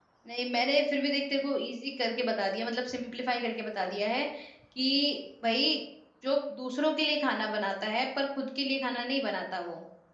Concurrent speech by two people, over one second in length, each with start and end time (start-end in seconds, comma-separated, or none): none